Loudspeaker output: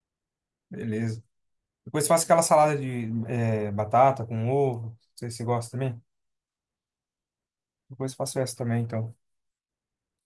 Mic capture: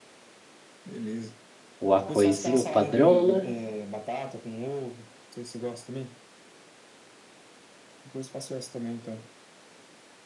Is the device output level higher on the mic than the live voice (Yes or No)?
No